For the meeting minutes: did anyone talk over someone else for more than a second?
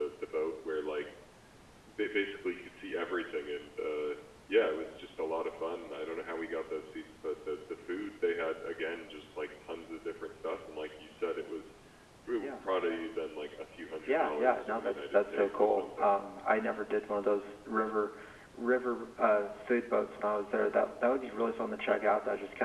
Yes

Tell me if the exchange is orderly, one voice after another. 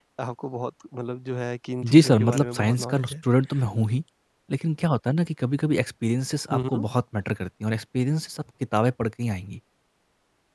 No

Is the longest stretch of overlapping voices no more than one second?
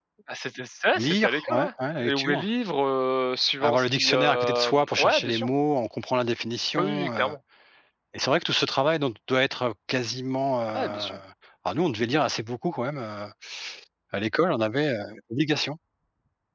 No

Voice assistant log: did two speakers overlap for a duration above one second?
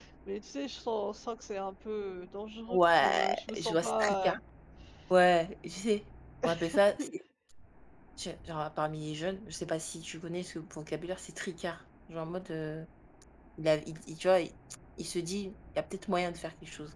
Yes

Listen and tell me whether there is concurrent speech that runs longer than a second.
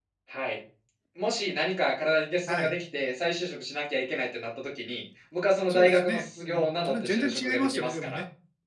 Yes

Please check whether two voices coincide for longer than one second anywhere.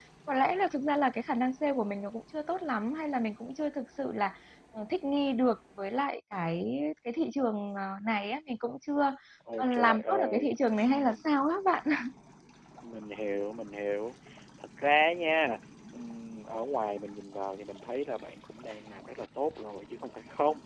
Yes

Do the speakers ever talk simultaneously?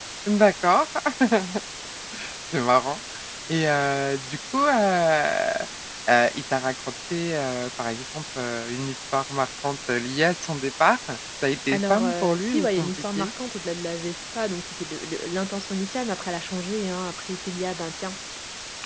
Yes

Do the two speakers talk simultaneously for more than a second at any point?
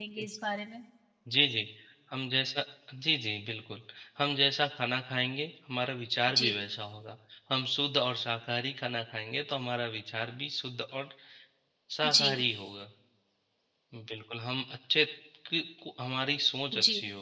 No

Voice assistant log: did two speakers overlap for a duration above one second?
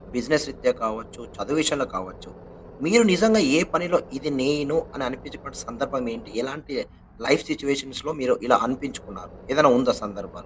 No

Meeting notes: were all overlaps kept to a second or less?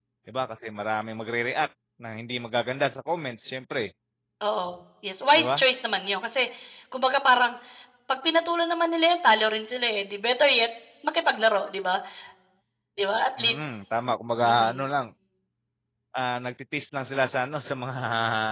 Yes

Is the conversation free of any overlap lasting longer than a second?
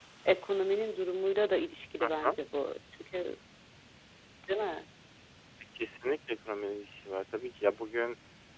Yes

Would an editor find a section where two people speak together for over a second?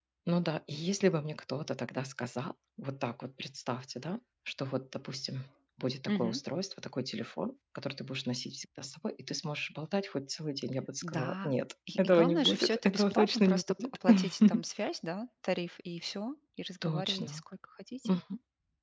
Yes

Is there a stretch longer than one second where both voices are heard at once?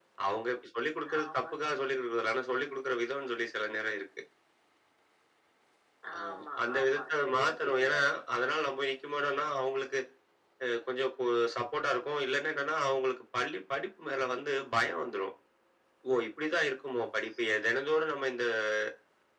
Yes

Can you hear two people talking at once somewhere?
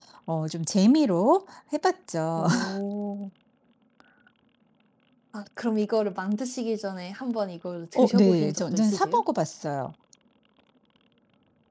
Yes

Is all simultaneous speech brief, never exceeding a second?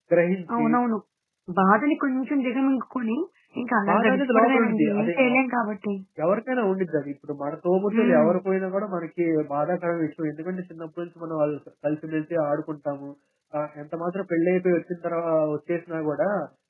No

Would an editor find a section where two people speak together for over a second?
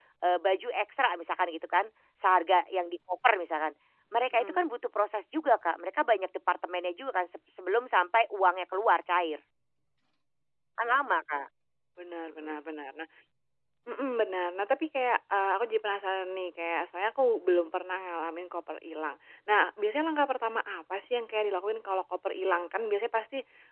No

